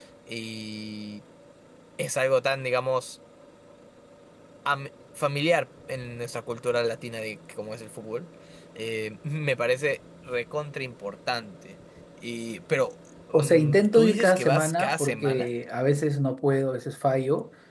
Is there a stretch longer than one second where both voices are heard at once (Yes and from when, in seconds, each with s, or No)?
Yes, from 13.3 s